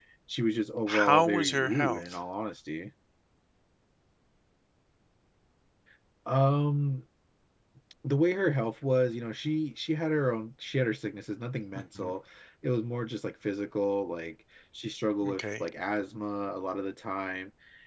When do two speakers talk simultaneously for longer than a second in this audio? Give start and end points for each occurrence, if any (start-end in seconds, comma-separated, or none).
0.9-2.2